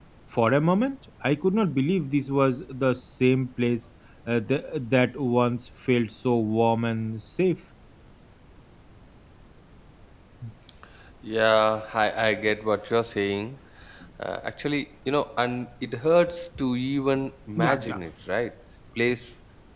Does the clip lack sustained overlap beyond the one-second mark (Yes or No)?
Yes